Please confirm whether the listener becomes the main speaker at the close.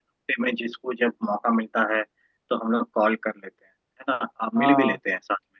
No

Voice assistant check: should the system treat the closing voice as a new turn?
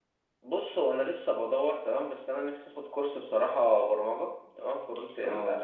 No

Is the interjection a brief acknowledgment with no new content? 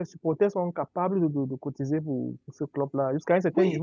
No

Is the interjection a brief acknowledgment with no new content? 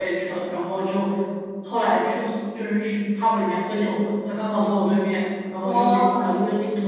Yes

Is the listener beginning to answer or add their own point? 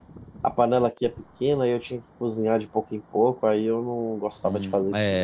Yes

